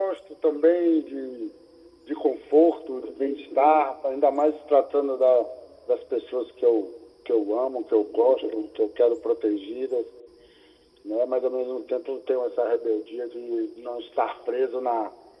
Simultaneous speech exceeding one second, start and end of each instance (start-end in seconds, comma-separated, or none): none